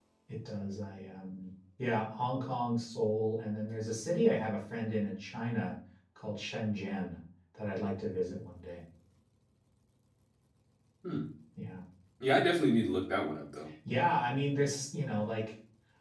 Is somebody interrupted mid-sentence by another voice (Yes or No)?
No